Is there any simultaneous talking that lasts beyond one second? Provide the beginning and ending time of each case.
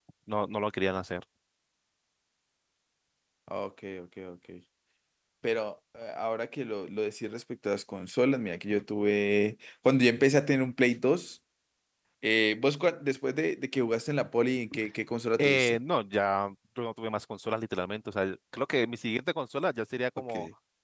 none

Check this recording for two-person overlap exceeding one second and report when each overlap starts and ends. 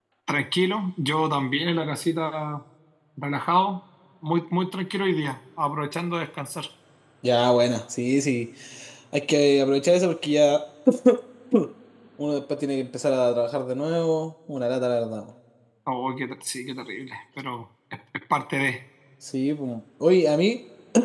none

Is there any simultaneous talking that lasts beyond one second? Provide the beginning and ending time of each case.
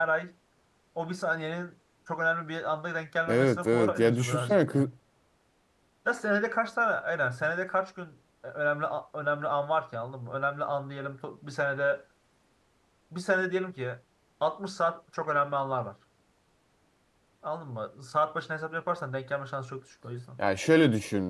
3.3-4.9

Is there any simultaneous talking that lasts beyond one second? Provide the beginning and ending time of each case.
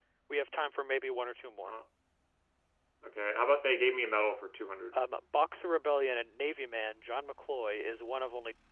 none

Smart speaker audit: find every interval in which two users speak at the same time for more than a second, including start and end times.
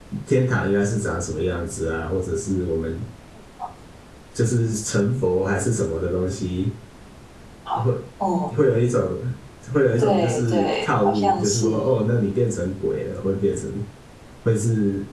10.0-11.7

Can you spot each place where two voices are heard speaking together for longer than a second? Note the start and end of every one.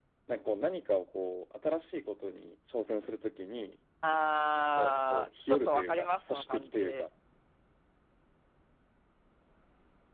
4.8-7.0

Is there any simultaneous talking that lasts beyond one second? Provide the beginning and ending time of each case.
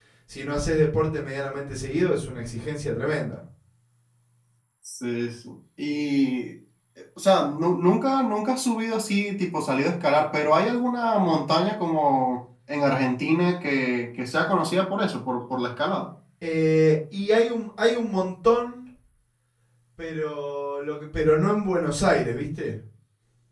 none

